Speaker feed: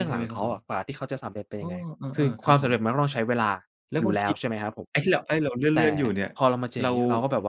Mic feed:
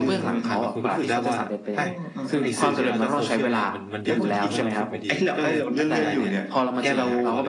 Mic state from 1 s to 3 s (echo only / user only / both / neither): both